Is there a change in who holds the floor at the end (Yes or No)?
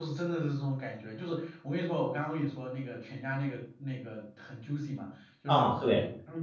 No